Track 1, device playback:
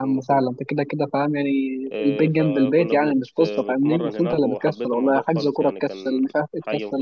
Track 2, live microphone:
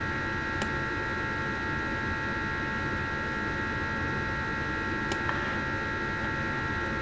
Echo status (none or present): none